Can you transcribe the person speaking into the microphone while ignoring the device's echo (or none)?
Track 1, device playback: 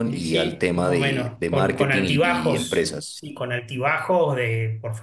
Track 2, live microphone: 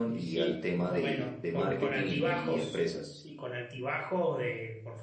none